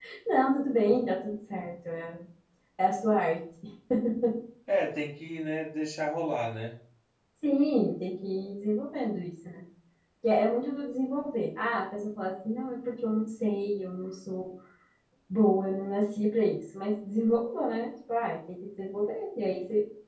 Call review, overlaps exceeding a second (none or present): none